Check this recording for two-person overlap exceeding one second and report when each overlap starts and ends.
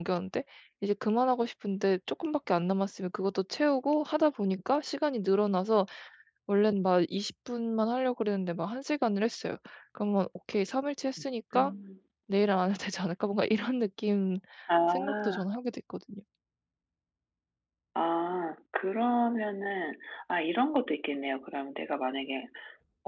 none

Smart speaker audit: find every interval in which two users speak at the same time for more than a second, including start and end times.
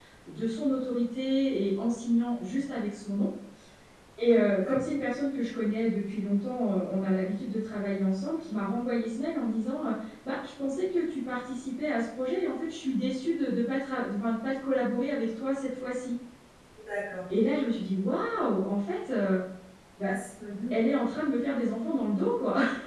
none

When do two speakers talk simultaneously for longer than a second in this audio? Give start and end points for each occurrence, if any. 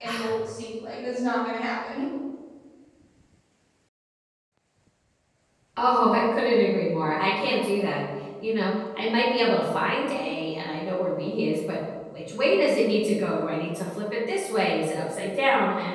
none

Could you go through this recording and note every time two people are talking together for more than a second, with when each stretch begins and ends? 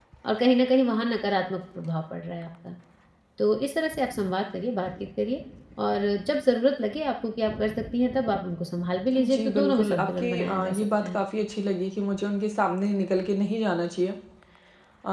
9.1-11.2

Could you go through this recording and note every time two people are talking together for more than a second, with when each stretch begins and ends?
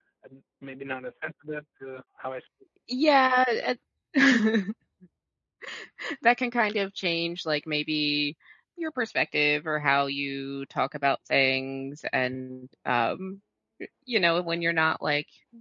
none

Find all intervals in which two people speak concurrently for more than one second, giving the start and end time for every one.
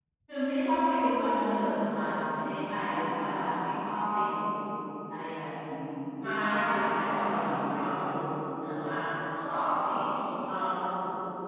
6.2-7.8

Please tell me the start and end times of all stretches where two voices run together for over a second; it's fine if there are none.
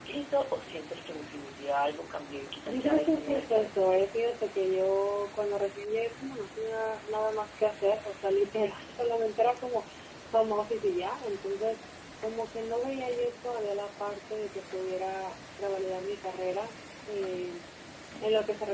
2.6-3.9

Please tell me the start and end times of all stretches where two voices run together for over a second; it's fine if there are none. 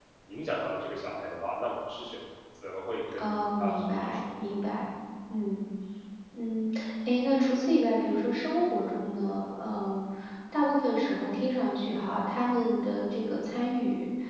3.2-4.4

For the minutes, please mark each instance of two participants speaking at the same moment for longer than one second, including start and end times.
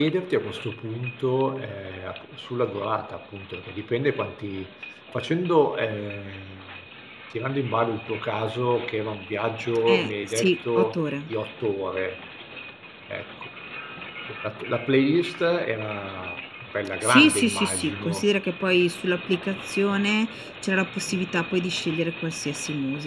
9.9-11.3, 17.0-18.3

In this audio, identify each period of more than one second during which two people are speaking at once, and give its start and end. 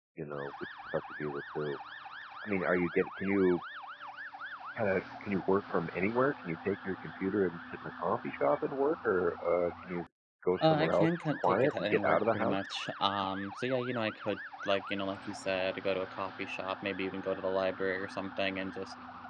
10.6-12.6

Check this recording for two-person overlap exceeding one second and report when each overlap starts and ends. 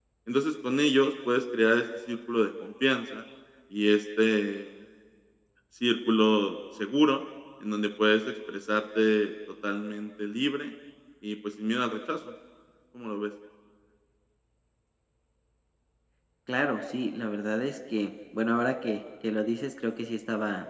none

